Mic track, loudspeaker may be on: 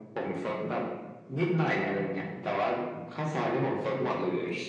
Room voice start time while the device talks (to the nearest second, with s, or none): none